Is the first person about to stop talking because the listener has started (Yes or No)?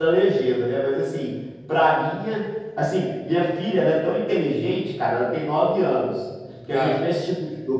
No